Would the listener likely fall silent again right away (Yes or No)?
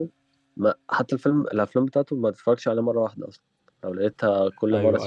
No